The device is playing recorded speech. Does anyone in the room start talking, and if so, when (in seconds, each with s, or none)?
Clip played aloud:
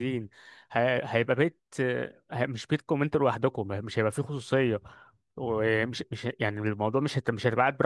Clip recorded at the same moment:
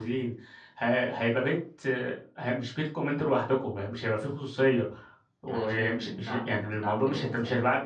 5.5 s